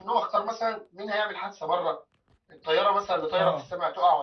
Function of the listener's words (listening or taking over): listening